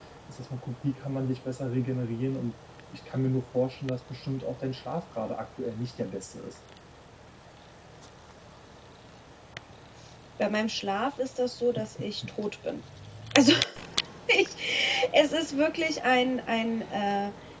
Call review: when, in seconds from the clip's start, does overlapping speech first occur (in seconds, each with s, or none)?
none